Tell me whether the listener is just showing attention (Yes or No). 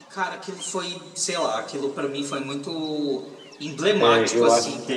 No